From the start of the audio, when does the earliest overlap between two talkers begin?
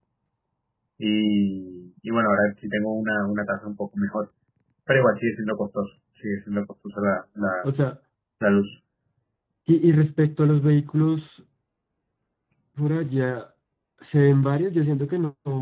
none

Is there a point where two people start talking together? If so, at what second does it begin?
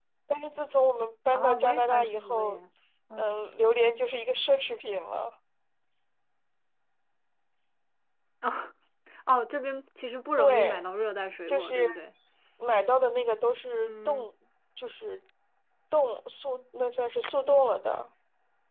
1 s

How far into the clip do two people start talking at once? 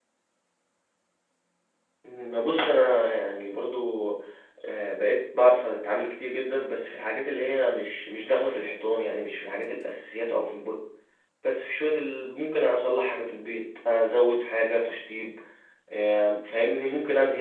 none

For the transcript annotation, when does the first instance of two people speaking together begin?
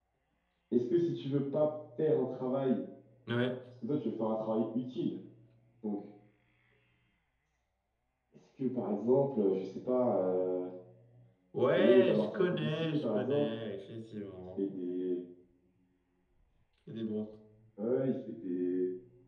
12 s

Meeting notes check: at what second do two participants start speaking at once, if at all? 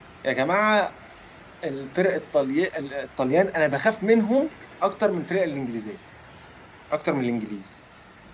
none

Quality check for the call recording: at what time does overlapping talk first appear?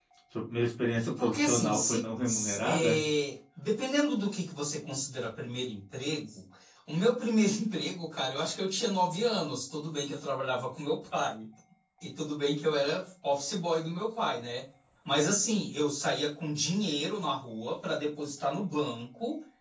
1 s

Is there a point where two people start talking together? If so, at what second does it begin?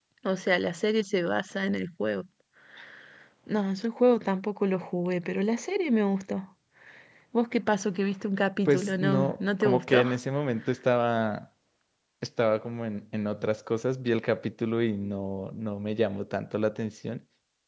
9 s

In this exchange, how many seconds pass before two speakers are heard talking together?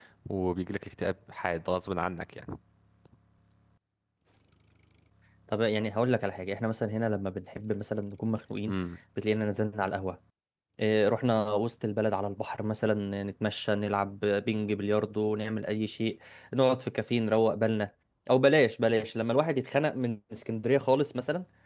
none

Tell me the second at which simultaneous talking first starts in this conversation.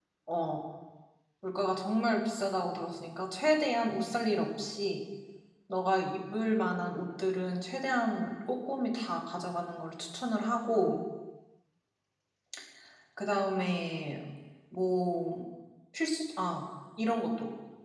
none

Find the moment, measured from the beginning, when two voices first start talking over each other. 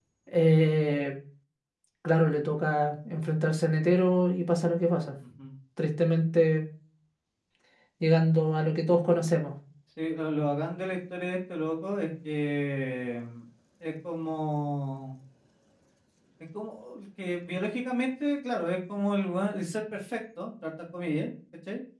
none

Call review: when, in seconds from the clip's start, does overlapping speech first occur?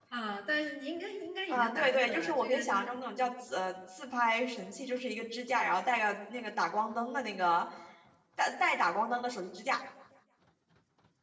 2 s

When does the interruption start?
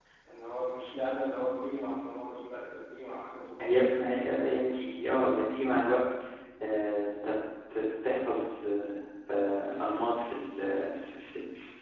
none

